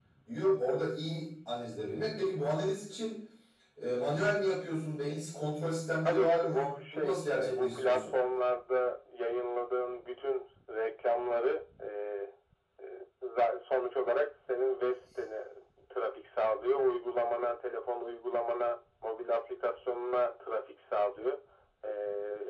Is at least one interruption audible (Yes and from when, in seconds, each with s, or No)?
Yes, from 6.0 s